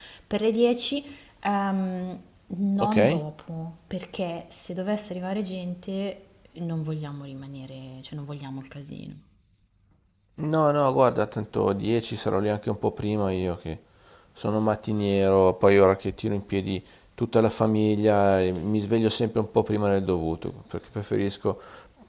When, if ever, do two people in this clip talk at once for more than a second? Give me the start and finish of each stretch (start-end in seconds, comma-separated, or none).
none